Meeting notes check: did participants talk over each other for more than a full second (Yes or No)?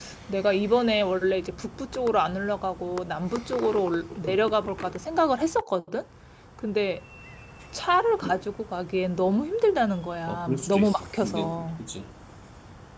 Yes